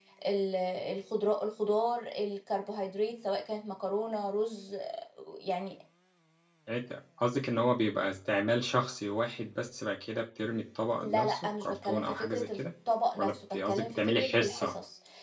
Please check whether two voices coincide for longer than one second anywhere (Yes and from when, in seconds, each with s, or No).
Yes, from 11.0 s